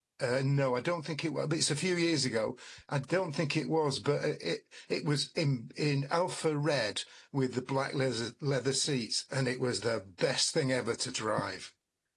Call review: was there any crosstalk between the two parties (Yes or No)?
No